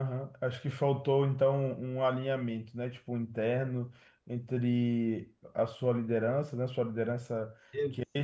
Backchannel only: Yes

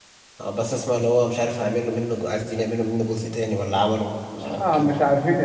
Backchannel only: No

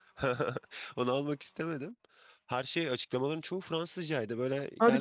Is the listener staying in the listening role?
No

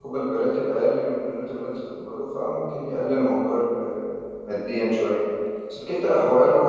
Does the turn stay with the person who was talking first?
Yes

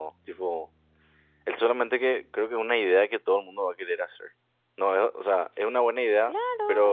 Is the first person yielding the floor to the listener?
Yes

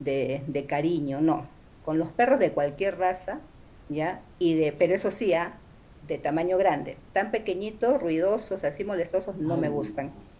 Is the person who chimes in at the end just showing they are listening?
No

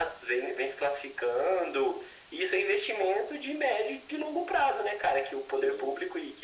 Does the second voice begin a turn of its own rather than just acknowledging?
No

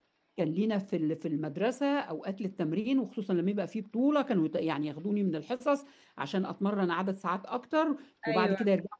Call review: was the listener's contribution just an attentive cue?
Yes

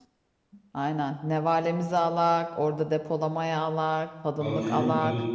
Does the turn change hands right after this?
Yes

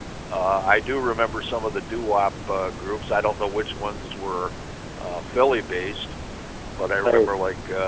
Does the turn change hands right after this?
No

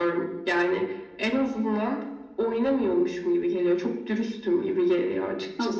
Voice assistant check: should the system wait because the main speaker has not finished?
No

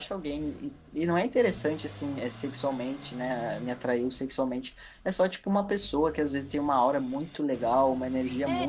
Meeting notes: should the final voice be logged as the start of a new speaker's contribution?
No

